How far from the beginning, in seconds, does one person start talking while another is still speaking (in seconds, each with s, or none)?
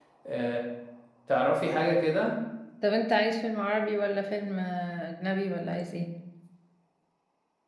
none